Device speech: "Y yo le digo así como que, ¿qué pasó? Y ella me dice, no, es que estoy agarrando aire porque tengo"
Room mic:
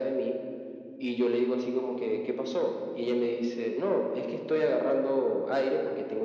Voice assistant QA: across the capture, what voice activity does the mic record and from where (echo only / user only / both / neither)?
echo only